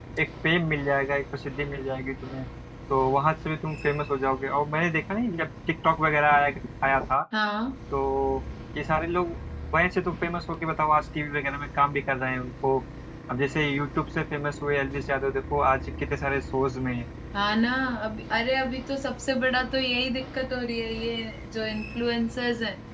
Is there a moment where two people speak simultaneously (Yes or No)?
No